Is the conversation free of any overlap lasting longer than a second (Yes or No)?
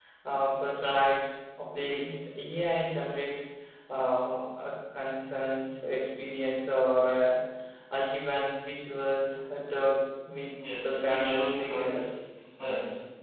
No